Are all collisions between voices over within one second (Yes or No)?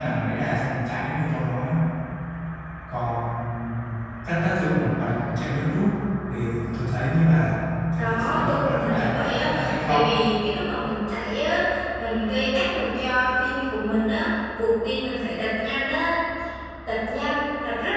No